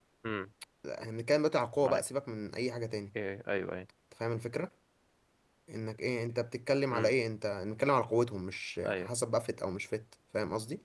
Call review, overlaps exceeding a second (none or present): none